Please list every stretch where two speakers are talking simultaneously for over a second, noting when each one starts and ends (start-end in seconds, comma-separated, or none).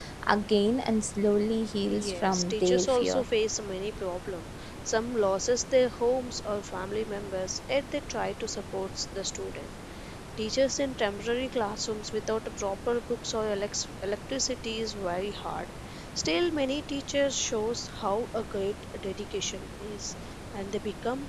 1.9-3.2